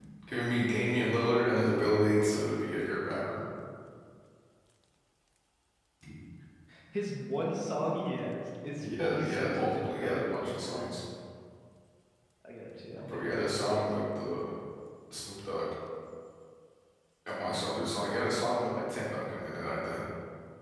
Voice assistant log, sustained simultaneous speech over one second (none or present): present